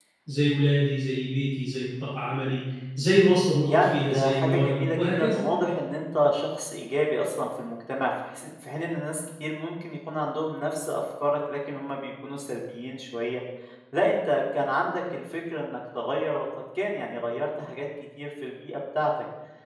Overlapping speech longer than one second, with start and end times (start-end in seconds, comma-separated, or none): 3.6-5.6